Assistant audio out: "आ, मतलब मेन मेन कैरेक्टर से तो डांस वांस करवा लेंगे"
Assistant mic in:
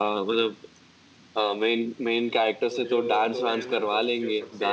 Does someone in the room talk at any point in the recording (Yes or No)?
Yes